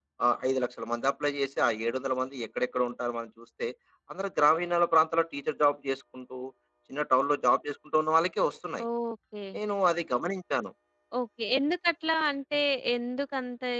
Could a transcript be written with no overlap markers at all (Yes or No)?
Yes